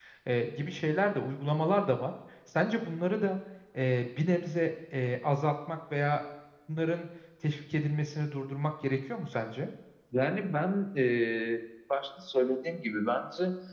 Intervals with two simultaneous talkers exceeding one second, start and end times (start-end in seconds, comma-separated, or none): none